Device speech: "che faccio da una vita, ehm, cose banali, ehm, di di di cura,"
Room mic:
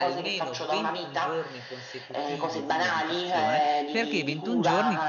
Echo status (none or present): present